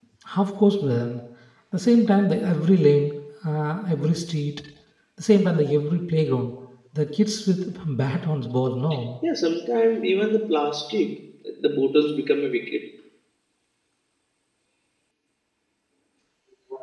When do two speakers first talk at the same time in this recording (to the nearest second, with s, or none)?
none